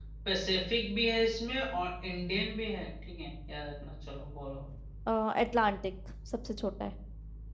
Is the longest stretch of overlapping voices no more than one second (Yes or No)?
Yes